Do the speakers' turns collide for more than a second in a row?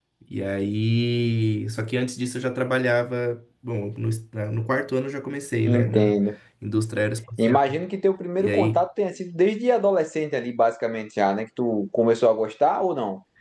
No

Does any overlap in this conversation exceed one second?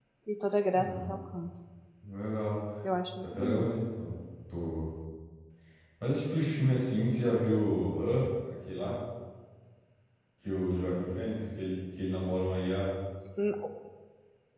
No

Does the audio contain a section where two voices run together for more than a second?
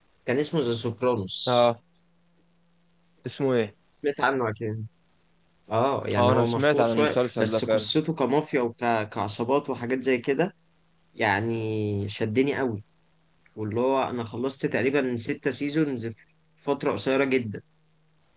Yes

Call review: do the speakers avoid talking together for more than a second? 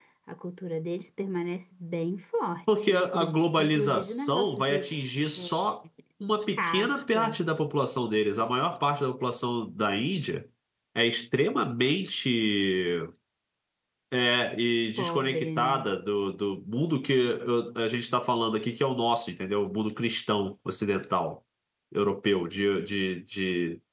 No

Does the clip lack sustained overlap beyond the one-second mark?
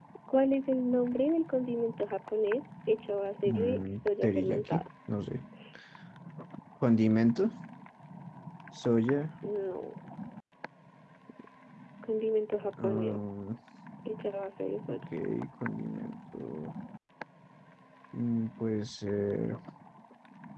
No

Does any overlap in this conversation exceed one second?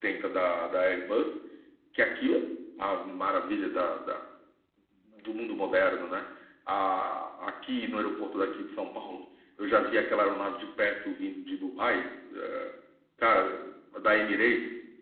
No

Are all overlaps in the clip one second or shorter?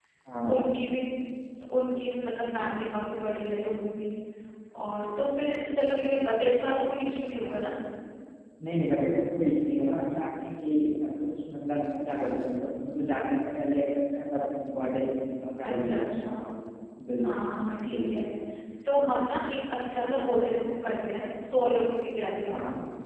Yes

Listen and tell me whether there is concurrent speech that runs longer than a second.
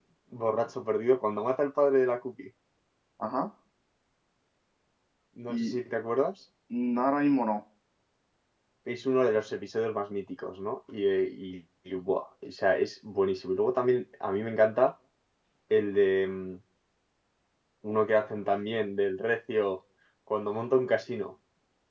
No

